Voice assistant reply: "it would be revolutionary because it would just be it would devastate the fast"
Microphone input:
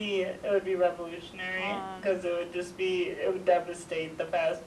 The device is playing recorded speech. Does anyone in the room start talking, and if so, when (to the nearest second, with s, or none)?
2 s